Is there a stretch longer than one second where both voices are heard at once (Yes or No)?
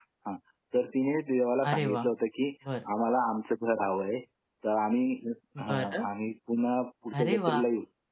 No